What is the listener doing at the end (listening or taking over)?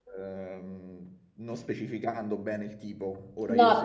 taking over